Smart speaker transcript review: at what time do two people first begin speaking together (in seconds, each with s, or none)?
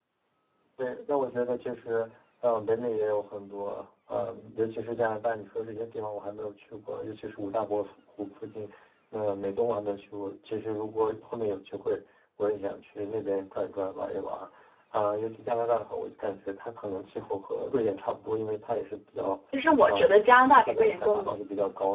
19.9 s